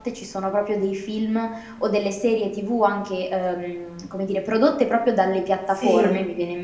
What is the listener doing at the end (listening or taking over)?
listening